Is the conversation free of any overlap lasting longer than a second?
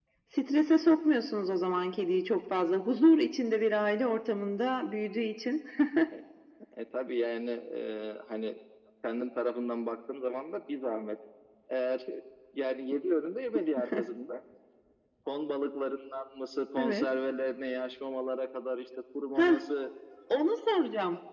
Yes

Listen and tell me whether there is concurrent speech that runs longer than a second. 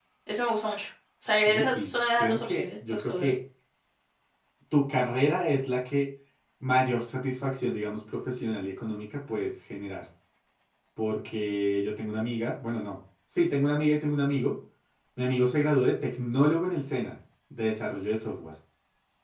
Yes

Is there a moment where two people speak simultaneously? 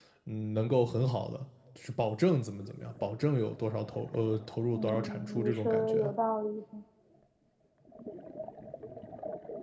Yes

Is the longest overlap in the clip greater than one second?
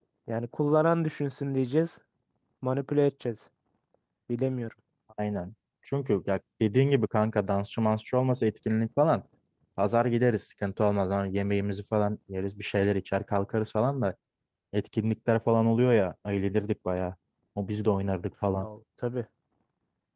No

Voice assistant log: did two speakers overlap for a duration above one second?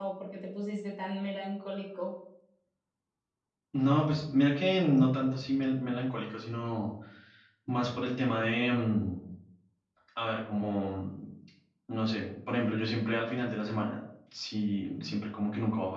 No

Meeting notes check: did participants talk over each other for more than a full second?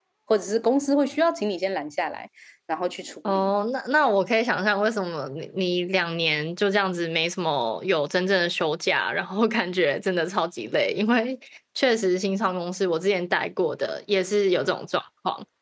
No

